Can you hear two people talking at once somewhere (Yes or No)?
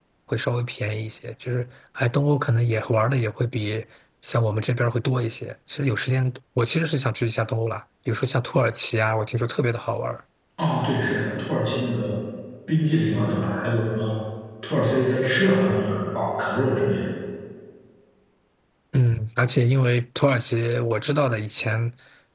No